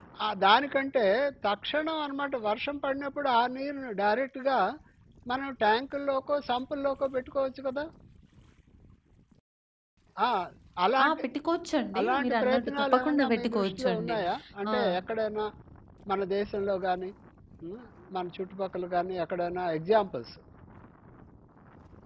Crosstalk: present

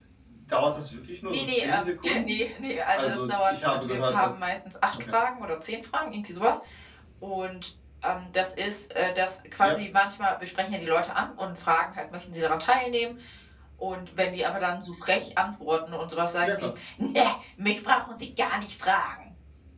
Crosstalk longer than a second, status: present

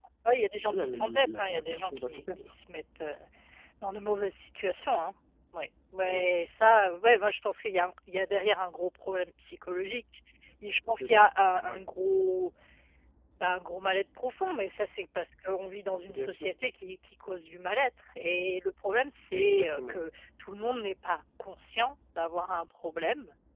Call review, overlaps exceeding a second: present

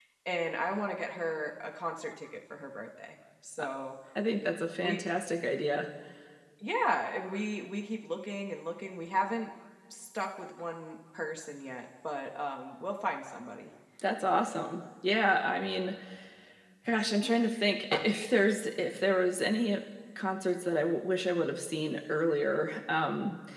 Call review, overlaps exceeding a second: none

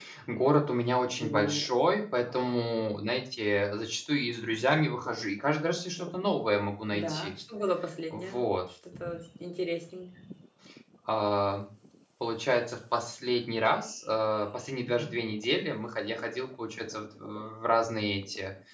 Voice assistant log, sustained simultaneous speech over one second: none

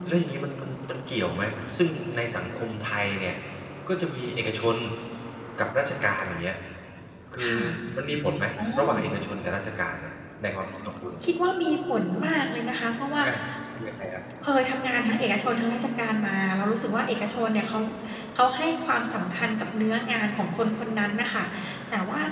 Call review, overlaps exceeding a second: none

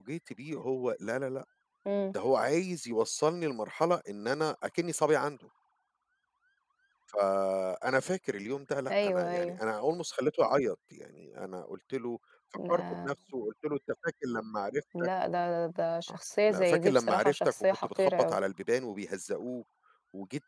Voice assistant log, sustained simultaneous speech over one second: present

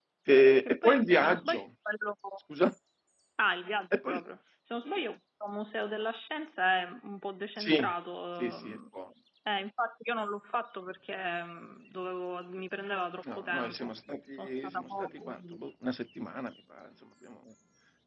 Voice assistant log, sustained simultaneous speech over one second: present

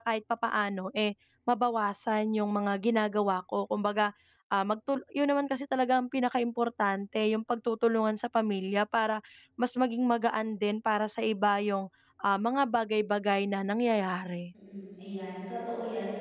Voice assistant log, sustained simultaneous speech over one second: none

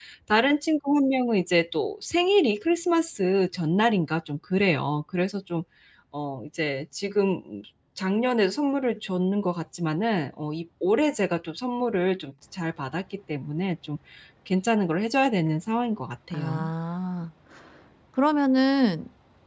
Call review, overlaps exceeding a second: none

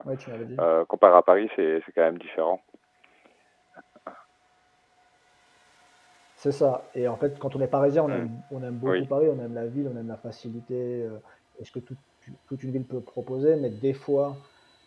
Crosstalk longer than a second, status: none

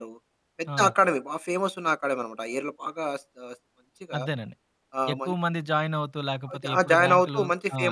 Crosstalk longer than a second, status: present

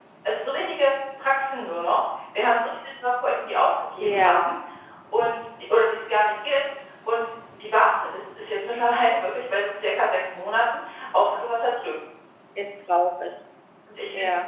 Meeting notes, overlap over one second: none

